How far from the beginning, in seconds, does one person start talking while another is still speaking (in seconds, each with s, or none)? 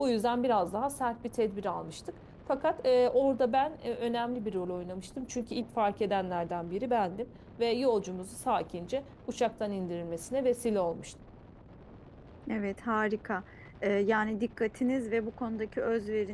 none